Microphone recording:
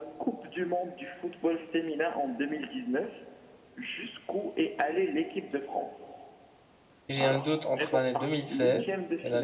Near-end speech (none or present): present